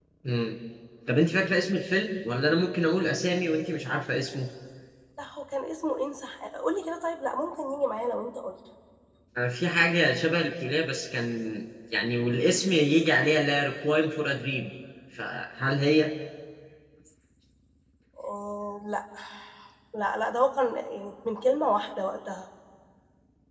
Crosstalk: none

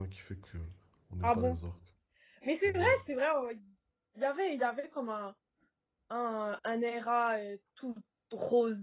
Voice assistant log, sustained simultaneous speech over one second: none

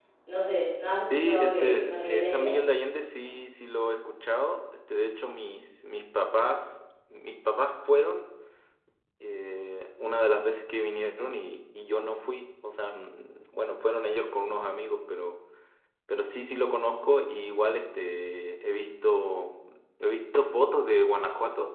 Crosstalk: present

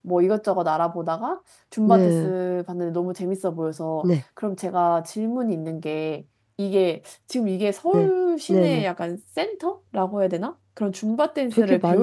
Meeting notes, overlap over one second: none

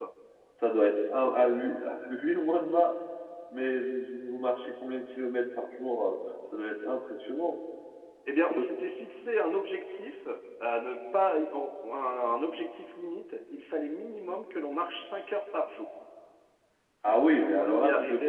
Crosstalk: present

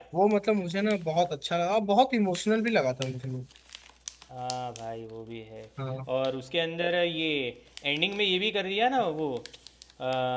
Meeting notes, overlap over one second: none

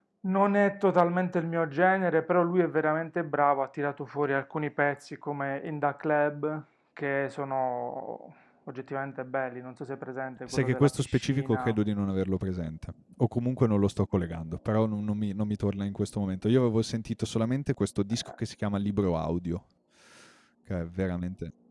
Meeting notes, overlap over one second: present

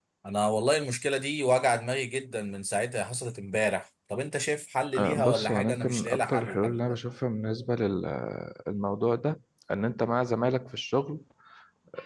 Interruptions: present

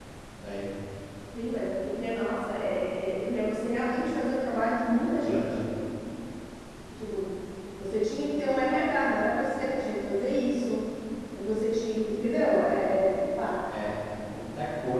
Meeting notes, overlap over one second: none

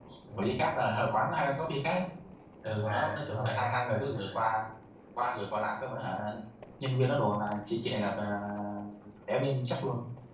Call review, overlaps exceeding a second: present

